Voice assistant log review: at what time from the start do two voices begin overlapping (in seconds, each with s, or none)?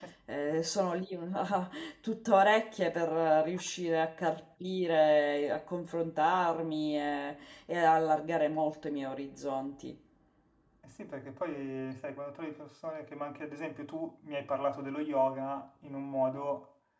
none